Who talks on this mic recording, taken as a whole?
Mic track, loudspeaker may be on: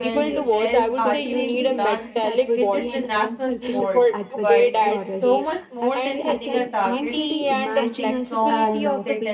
both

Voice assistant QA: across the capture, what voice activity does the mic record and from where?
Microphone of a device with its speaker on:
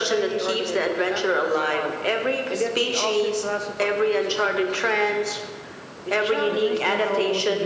both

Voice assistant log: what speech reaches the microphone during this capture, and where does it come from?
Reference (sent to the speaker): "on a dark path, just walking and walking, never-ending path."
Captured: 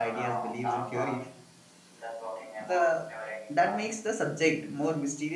both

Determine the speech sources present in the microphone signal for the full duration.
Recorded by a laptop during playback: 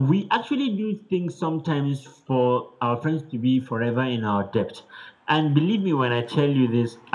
echo only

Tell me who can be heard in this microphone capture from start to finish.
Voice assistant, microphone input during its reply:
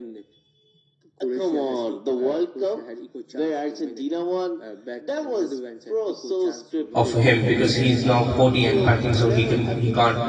both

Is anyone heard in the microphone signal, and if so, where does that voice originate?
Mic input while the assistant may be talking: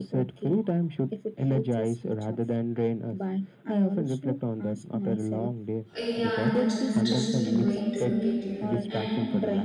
both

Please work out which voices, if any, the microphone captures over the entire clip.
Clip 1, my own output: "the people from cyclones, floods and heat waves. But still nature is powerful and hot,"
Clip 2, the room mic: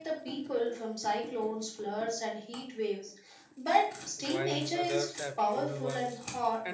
both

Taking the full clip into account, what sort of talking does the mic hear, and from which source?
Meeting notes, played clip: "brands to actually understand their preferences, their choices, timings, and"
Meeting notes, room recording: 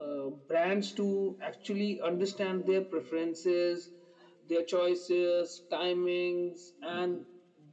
echo only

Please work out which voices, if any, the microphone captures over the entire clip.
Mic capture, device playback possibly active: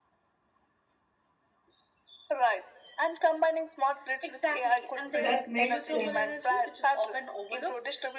both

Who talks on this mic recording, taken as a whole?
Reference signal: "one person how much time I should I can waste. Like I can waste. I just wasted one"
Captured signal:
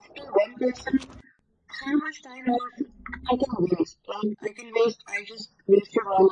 echo only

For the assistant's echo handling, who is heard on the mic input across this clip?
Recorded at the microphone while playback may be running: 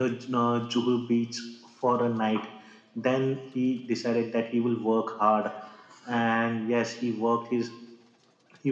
echo only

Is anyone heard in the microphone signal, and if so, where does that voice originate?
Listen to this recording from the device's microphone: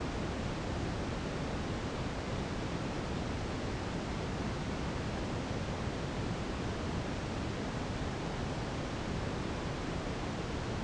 neither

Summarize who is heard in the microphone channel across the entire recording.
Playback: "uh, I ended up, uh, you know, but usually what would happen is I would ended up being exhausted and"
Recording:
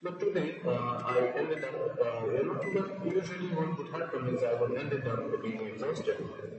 echo only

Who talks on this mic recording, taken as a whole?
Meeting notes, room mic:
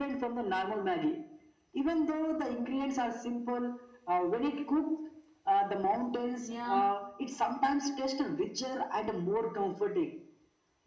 both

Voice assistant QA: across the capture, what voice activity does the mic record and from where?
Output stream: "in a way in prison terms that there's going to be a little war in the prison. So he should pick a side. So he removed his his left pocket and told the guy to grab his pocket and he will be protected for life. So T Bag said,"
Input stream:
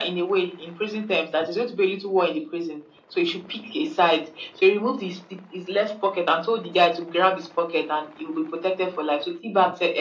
echo only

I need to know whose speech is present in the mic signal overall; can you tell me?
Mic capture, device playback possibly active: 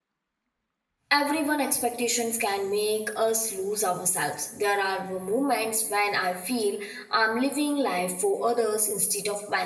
user only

